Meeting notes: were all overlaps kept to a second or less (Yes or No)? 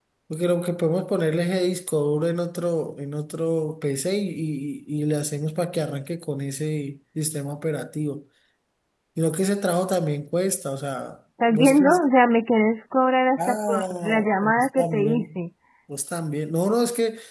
No